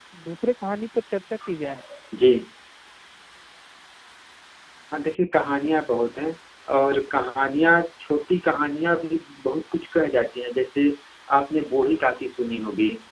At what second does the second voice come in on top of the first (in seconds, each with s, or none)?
none